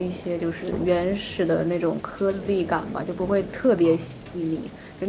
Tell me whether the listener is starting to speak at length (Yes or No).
No